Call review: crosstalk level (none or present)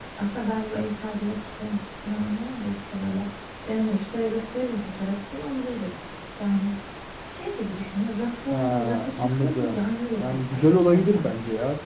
present